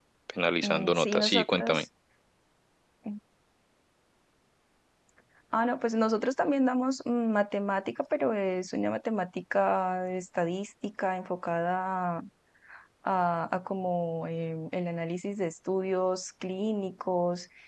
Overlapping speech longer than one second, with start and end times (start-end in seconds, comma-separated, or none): 0.6-1.8